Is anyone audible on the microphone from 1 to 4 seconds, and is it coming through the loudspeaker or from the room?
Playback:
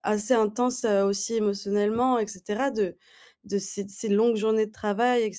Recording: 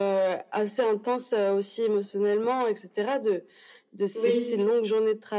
echo only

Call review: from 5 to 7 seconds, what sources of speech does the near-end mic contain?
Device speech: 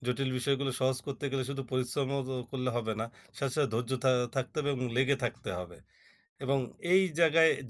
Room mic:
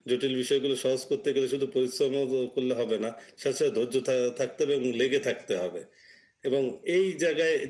echo only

